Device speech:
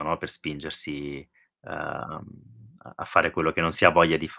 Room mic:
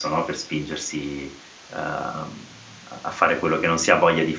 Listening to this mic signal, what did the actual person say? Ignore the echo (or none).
none